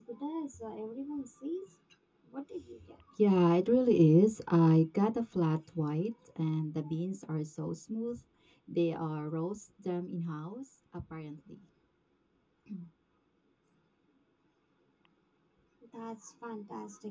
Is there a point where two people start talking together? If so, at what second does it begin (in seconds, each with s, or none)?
none